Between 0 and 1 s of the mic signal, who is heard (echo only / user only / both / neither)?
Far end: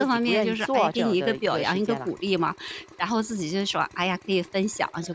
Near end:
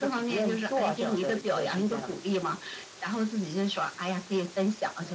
echo only